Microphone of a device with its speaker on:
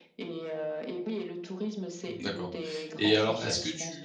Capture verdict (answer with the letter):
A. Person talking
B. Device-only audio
A